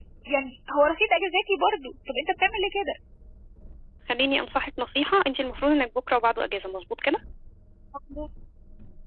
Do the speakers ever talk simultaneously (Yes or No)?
No